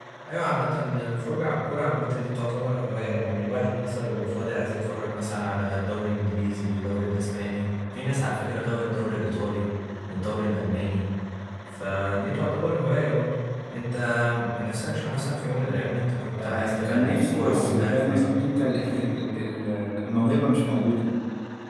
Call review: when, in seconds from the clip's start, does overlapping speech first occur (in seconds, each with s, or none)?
16.4 s